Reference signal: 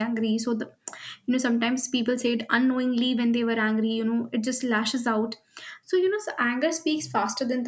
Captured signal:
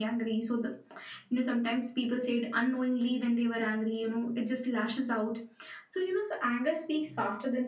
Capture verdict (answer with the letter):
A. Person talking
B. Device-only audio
B